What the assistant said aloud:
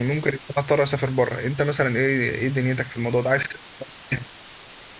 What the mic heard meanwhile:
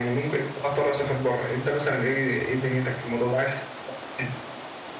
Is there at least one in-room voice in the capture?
No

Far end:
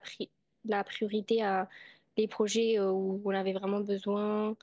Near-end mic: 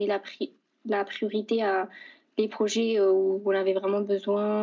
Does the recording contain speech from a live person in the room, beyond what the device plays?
No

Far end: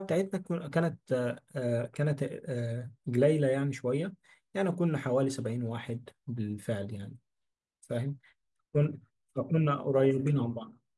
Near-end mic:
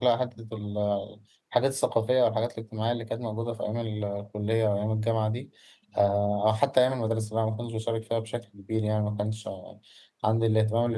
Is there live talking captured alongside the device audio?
Yes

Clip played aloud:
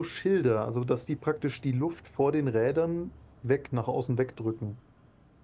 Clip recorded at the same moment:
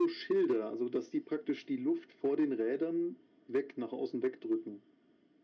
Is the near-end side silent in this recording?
Yes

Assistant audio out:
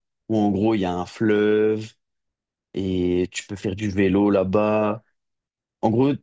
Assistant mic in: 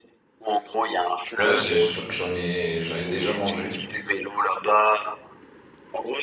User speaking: Yes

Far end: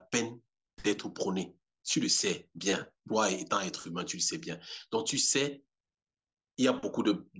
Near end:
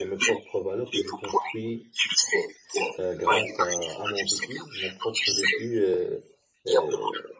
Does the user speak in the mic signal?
Yes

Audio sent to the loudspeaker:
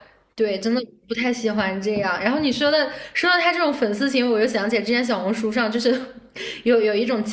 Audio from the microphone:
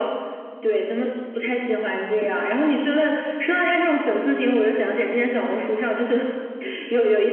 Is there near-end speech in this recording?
No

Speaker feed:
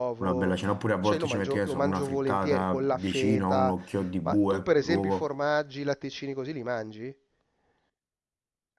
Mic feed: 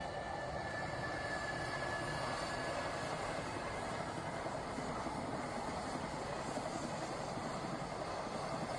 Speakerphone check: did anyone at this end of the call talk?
No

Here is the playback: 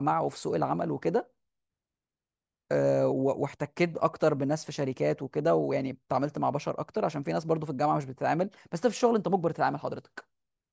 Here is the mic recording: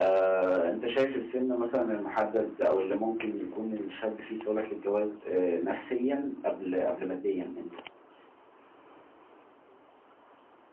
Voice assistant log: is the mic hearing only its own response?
No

